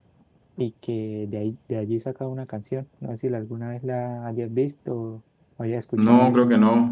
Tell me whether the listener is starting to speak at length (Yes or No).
Yes